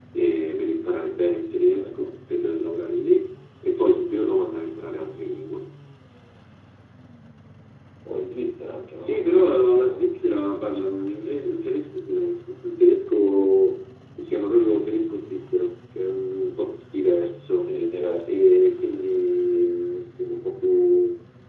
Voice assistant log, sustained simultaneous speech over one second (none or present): present